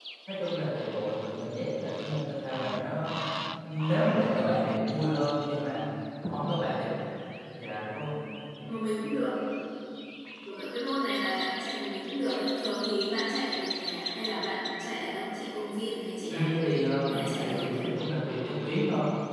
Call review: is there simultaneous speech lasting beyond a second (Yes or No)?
Yes